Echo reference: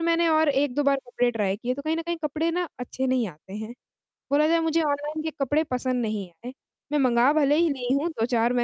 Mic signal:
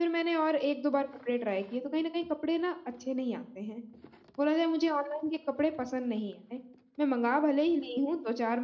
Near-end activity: none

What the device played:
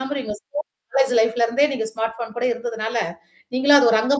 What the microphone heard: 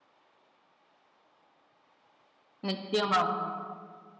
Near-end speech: present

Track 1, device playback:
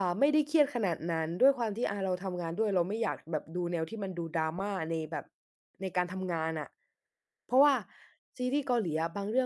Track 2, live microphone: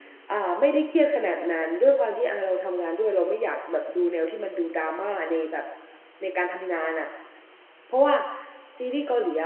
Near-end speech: none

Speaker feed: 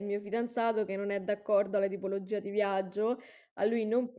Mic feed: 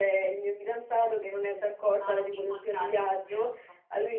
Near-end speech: present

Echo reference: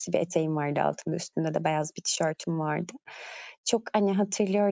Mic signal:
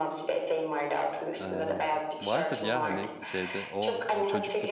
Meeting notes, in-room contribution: present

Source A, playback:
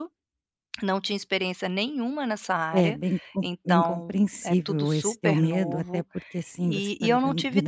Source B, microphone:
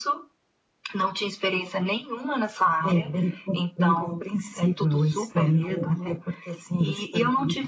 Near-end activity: none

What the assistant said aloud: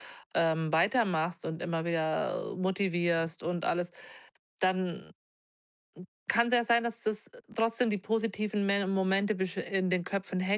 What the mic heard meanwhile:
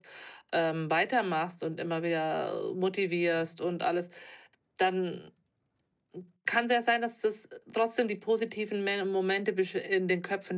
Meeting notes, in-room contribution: none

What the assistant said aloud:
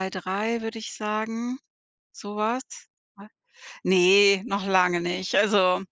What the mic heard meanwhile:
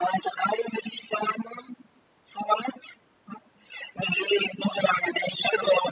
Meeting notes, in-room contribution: none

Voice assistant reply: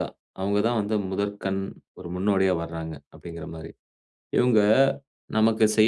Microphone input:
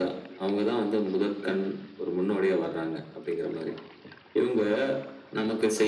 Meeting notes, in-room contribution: none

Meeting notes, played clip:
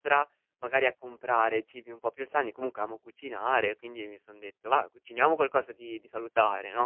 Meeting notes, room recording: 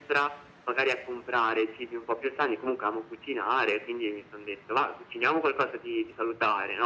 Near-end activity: none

